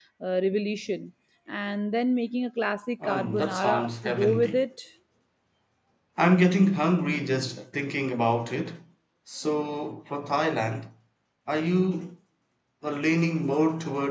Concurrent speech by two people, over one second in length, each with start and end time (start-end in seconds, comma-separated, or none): 3.0-4.6